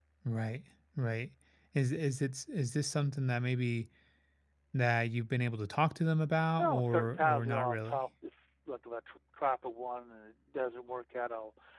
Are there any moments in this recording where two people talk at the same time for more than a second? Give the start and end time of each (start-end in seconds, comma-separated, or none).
6.6-8.0